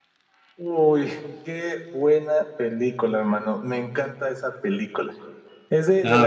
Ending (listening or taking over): listening